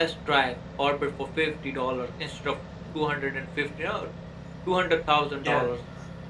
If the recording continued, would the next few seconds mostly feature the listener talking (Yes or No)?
No